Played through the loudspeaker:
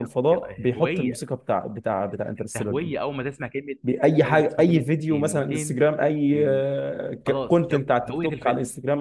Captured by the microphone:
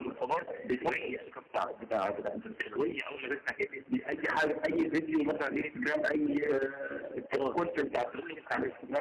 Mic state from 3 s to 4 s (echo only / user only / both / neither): echo only